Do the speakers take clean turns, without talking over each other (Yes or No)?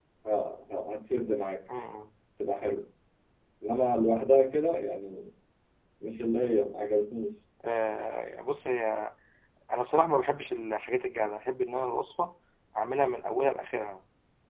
Yes